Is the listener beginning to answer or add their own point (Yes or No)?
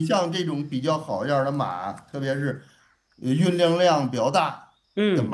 No